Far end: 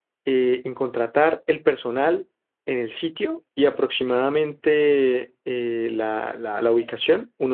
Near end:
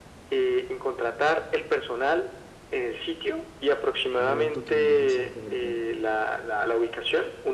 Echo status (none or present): present